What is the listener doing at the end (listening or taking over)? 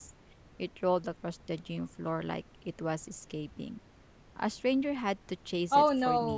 taking over